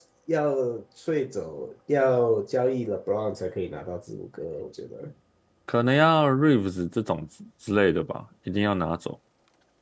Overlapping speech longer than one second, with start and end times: none

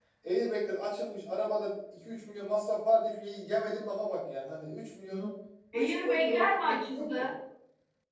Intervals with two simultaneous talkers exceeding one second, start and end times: 5.7-7.3

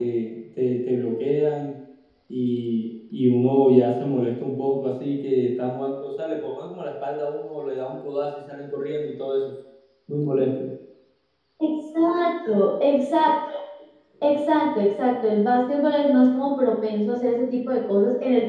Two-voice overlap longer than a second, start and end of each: none

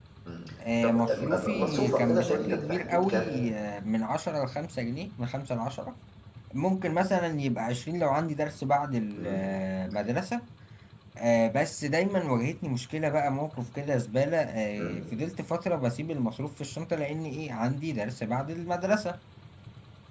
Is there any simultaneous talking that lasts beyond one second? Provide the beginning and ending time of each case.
0.8-3.2

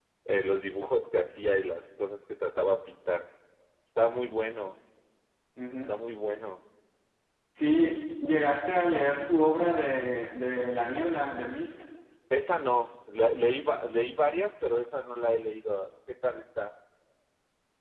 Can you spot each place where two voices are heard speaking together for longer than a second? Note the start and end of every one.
none

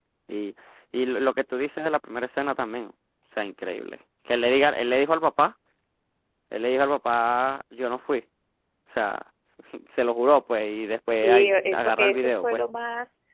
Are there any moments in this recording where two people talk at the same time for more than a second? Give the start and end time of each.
11.2-12.6

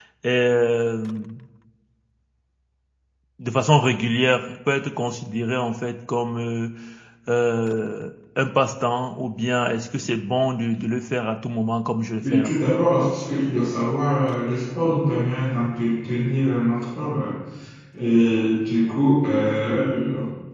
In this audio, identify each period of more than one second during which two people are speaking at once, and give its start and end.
none

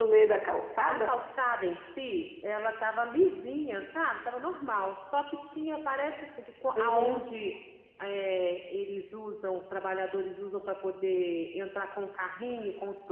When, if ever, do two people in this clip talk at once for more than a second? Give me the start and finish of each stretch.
none

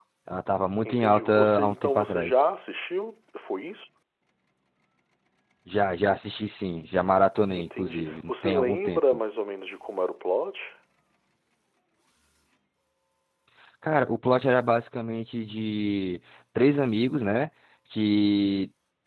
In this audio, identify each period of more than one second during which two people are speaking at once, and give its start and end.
0.8-2.4, 7.5-9.0

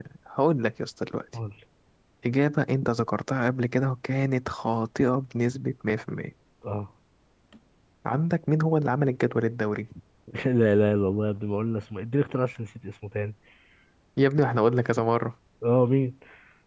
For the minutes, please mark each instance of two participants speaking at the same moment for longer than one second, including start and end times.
none

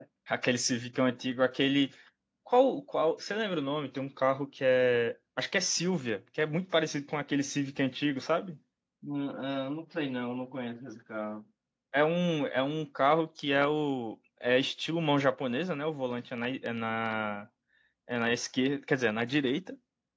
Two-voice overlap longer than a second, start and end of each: none

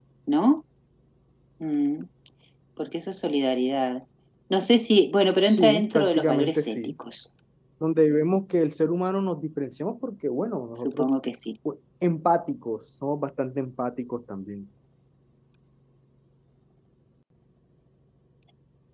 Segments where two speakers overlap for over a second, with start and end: 5.5-6.9

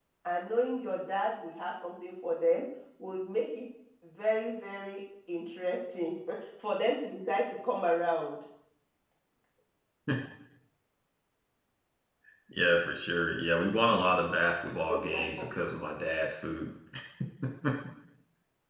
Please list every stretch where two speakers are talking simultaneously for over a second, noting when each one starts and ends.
none

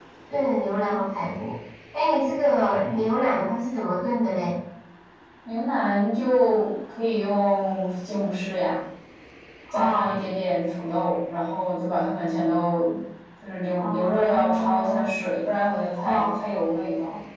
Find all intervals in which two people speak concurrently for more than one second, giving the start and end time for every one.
13.8-15.1

